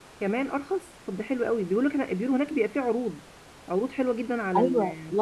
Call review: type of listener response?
taking over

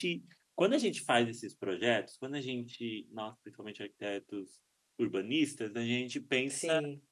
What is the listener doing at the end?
listening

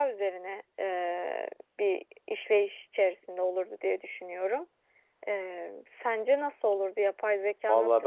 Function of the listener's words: taking over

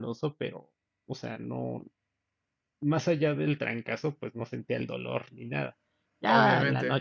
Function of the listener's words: taking over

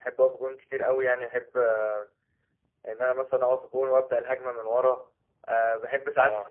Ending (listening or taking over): listening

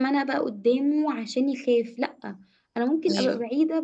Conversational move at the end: listening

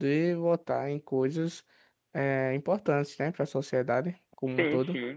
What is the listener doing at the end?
taking over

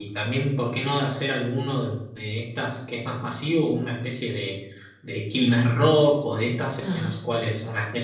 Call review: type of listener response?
listening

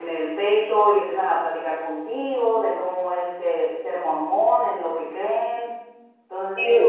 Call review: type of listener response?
taking over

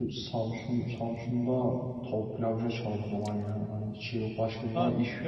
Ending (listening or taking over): taking over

